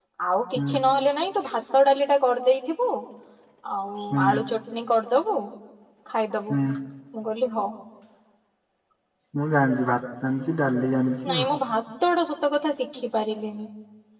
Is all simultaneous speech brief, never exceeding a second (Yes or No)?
Yes